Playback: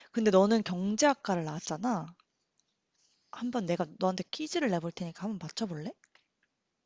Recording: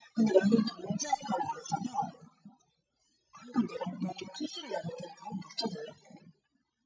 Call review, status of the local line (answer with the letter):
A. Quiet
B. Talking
A